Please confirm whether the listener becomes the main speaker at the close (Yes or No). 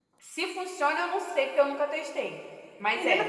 Yes